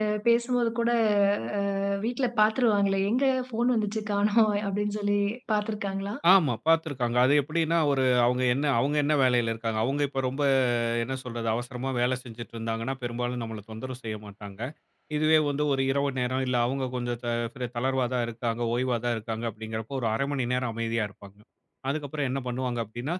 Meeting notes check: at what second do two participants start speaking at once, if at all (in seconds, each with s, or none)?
none